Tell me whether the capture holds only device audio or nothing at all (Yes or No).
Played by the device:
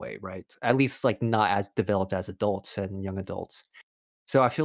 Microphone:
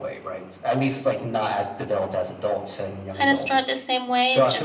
No